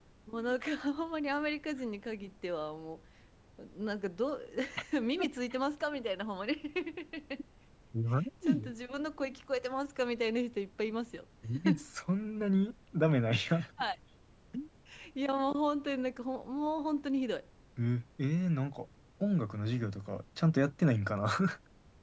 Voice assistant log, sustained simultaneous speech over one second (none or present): none